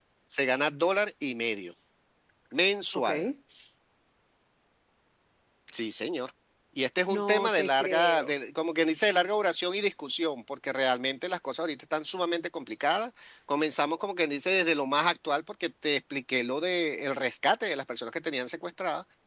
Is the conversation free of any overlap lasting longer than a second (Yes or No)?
No